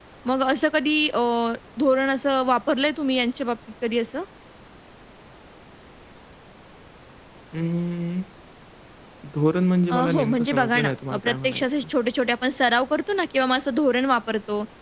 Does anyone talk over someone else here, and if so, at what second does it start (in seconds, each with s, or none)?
9.9 s